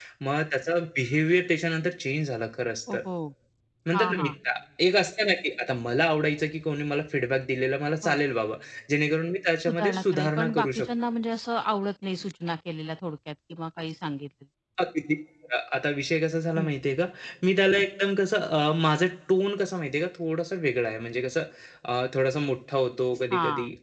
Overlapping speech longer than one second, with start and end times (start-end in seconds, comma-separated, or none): 9.6-10.9